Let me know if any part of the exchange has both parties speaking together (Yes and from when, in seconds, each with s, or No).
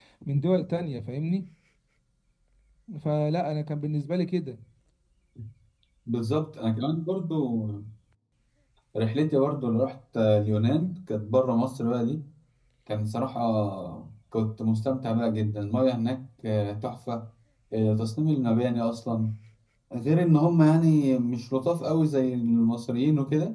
No